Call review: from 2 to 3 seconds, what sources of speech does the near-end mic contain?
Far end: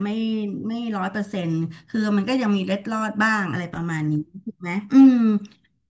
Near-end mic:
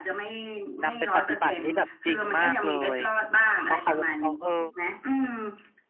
both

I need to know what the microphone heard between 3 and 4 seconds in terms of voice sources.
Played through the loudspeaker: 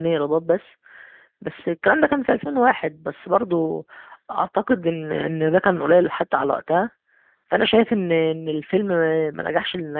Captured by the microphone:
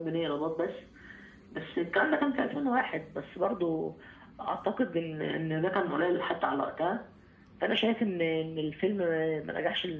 echo only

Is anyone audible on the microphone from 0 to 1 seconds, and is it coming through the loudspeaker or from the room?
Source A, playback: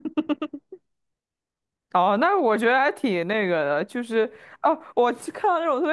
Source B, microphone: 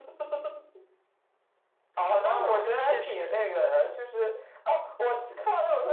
neither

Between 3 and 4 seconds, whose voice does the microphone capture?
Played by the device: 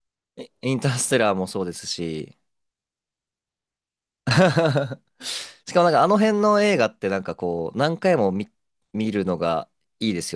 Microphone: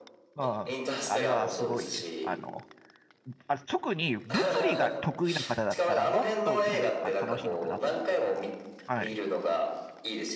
user only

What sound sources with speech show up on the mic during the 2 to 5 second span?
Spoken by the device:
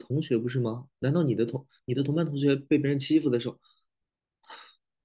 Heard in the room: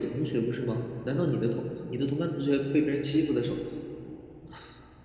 echo only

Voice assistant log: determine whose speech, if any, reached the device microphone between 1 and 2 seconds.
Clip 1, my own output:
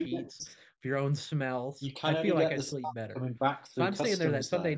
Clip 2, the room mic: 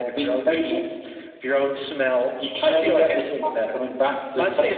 echo only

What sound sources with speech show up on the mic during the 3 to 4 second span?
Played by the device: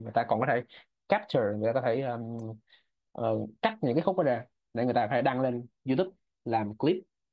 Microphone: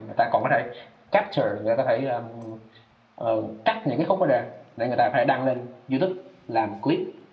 echo only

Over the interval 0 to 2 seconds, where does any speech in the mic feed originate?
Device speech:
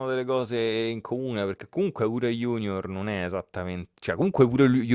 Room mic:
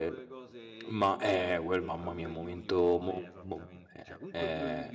both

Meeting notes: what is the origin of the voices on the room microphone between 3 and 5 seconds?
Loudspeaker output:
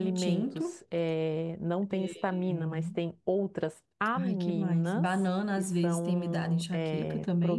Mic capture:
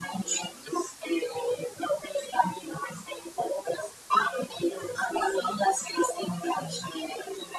echo only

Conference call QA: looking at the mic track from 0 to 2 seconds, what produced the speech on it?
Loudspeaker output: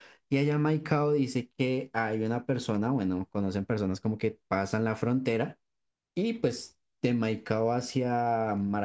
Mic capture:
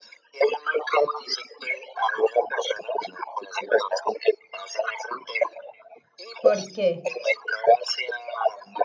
echo only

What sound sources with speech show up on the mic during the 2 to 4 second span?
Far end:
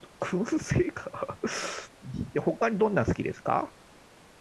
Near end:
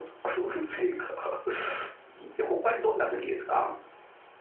echo only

